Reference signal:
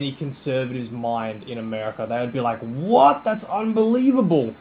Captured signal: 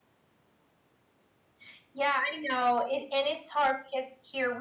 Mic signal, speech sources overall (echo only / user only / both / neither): user only